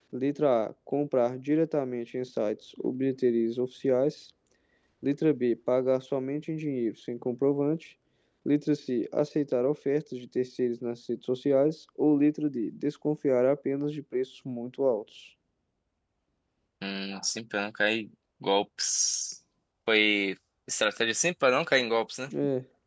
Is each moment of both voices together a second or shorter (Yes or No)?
Yes